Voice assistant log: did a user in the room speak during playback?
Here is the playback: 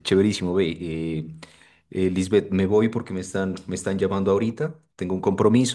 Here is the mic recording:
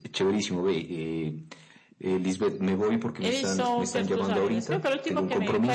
Yes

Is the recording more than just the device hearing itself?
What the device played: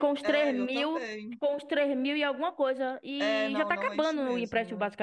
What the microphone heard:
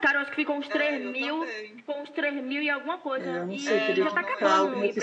Yes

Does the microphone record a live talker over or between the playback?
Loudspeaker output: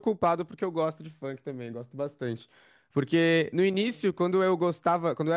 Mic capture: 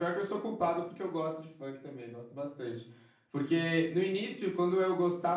No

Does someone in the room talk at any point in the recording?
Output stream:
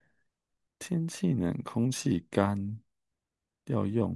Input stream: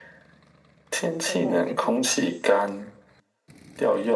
Yes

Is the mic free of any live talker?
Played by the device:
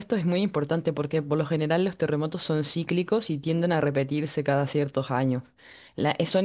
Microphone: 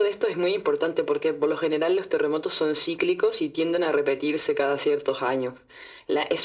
Yes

